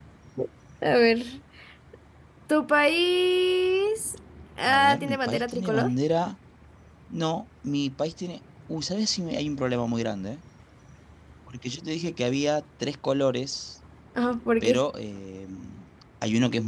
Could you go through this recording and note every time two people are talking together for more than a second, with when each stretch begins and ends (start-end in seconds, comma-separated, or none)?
4.6-5.9